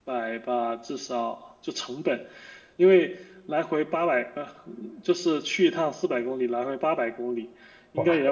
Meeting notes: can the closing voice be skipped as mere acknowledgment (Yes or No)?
Yes